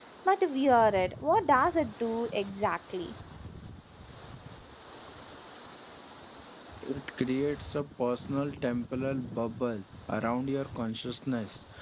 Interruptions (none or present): none